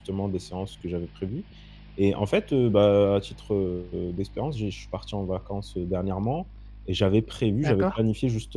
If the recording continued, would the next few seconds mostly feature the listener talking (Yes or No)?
No